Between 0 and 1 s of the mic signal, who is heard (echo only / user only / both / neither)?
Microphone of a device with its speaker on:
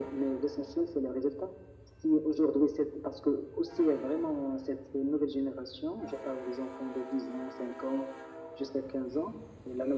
echo only